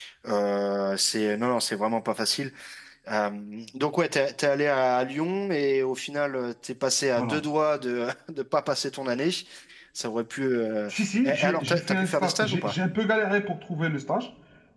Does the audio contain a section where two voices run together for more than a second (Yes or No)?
Yes